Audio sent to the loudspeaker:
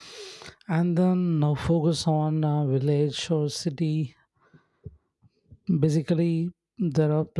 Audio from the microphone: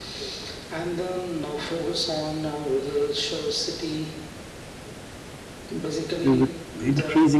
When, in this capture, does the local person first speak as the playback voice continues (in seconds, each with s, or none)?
6.2 s